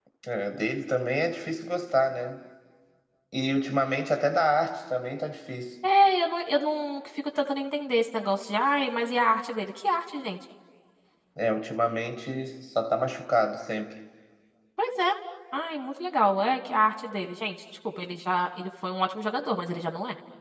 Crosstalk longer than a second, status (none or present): none